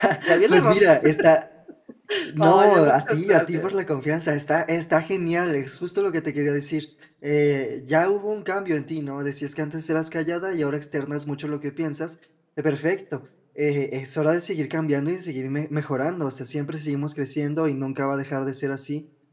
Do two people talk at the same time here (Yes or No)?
Yes